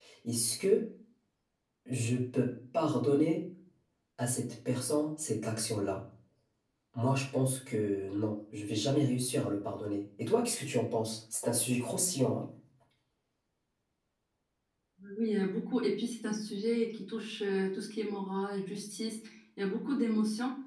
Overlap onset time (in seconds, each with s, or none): none